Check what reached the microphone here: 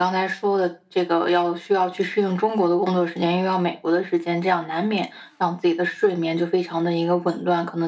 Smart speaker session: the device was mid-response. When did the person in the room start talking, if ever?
none

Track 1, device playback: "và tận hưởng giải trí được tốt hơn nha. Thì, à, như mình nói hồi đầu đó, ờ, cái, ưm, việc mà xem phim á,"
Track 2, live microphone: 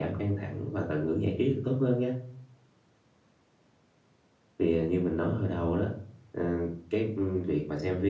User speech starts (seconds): none

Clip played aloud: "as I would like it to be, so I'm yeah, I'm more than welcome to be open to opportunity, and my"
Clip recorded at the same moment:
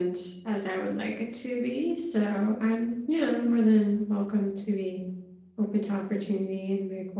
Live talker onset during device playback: none

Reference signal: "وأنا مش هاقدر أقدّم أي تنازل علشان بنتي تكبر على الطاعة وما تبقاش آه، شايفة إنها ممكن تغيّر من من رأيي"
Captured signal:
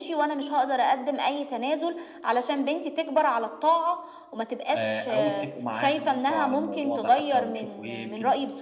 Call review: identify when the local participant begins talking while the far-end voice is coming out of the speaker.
4.7 s

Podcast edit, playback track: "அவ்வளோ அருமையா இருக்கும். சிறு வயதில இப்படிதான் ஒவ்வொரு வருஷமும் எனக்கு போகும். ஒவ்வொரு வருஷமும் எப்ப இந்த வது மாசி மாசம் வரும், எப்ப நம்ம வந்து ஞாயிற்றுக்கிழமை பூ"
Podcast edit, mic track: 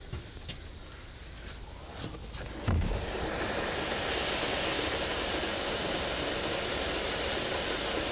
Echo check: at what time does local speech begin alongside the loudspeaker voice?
none

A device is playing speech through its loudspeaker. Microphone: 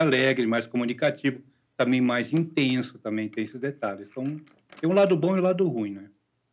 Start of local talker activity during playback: none

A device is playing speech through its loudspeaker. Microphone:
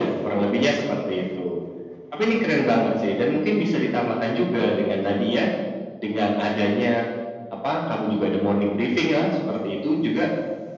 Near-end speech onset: none

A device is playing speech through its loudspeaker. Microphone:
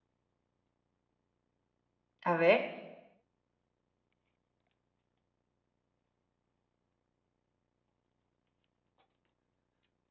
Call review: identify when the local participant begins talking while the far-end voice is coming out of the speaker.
2.3 s

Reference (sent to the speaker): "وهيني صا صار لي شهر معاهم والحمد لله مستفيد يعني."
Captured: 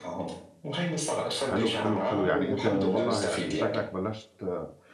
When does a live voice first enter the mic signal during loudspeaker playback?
1.3 s

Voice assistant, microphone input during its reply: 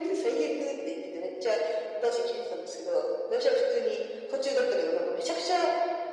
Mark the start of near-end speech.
none

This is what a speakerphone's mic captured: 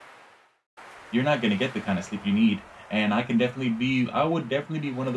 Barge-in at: 1.1 s

